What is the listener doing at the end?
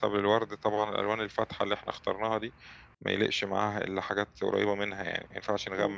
listening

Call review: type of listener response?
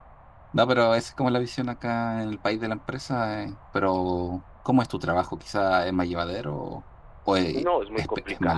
taking over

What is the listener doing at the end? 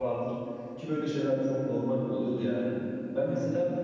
listening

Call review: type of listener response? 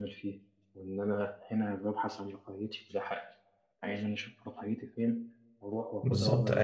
taking over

